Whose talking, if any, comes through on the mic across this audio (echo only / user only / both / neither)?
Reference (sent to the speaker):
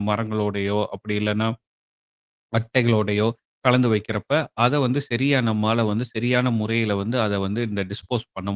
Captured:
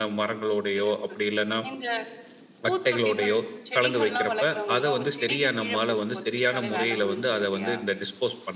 both